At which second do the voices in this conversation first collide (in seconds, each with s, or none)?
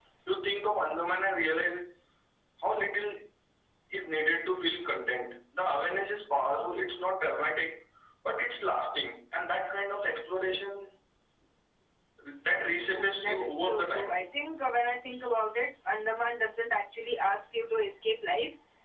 12.8 s